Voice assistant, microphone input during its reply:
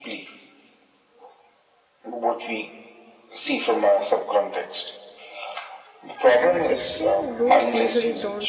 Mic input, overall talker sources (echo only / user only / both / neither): both